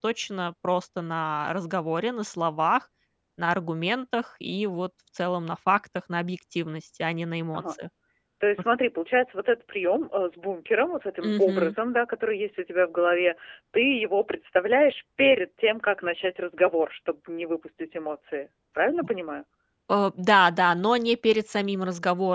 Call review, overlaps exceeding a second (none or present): none